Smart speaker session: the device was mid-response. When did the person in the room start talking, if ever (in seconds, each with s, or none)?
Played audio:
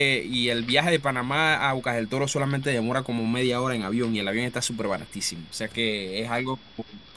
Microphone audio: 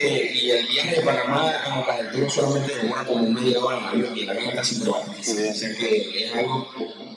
5.2 s